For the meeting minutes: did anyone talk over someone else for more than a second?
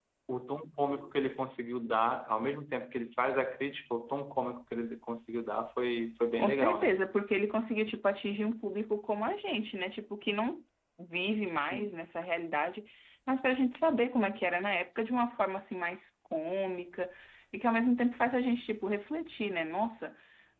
No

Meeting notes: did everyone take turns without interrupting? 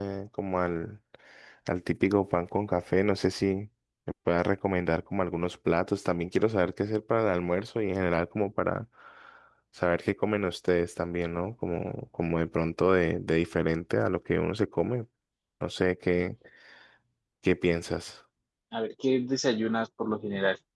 Yes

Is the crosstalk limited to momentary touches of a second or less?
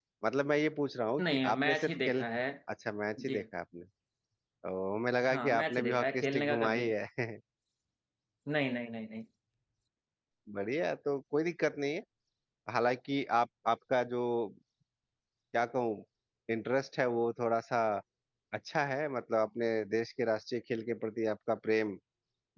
No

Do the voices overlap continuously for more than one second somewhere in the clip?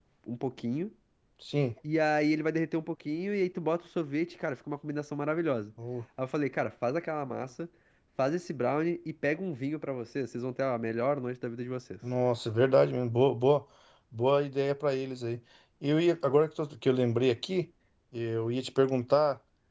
No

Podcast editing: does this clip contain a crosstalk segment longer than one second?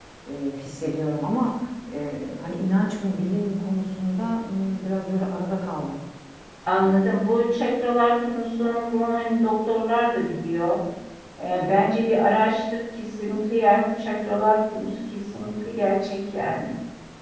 No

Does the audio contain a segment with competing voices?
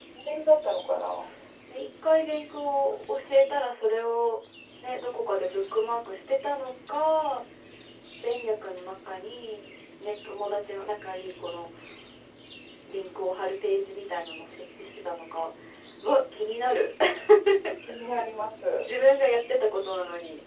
No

